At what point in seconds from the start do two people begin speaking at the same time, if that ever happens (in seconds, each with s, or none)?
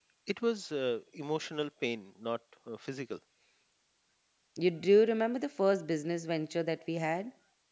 none